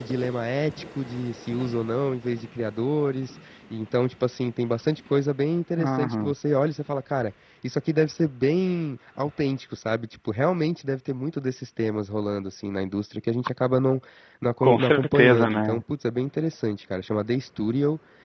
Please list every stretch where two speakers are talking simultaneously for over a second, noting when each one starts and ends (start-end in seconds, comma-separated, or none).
14.6-15.8